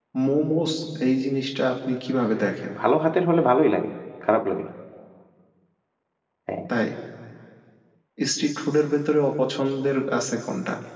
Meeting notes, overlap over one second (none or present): none